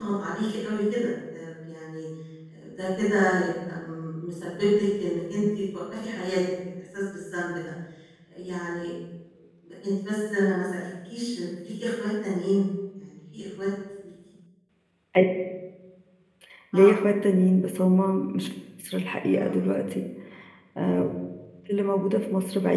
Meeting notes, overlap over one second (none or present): none